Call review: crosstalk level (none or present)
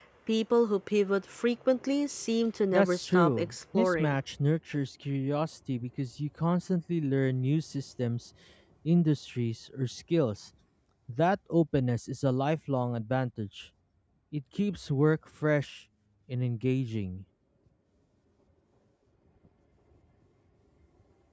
present